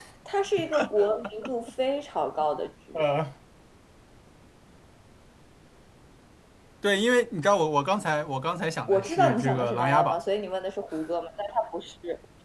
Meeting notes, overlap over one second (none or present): present